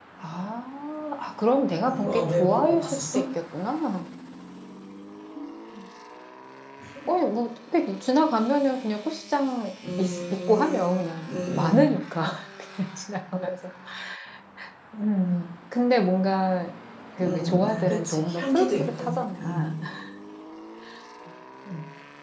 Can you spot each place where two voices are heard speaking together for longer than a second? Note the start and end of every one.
1.9-3.2, 10.0-11.8, 17.2-19.6

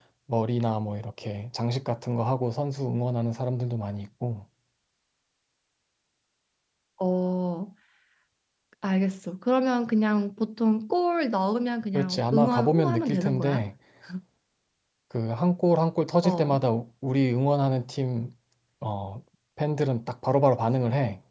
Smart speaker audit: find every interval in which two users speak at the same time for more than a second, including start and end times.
11.9-13.7

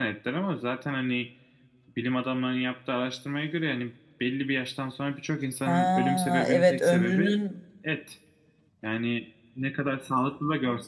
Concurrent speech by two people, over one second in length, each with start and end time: 5.7-7.4

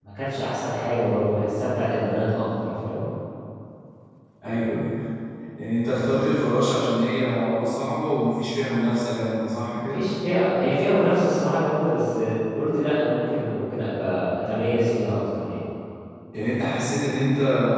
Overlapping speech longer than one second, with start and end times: none

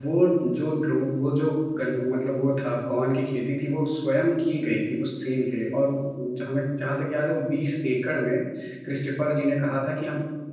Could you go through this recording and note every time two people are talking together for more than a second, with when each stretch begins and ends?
none

